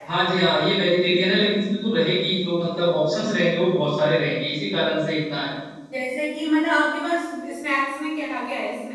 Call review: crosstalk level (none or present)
none